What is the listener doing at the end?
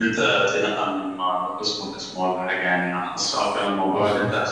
listening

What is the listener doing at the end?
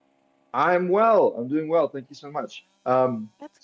listening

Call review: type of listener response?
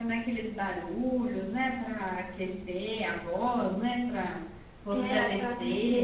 taking over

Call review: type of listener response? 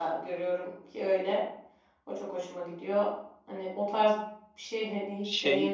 taking over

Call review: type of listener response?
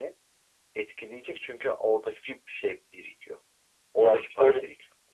taking over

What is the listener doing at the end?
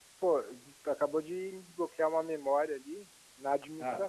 listening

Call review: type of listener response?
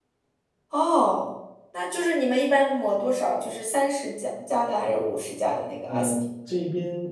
taking over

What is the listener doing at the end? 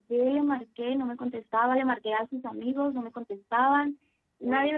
listening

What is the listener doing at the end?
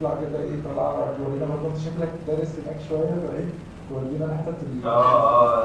taking over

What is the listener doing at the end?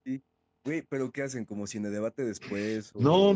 taking over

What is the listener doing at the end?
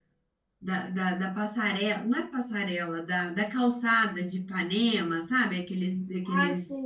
taking over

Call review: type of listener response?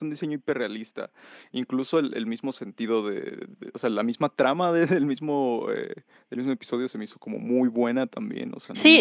taking over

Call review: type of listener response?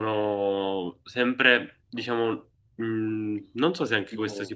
listening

